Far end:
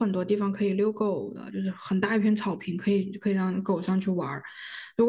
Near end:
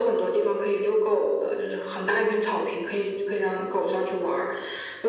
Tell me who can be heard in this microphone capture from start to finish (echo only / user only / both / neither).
echo only